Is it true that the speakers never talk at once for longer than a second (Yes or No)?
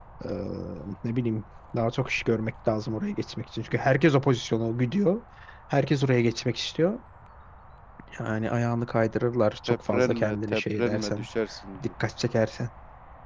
No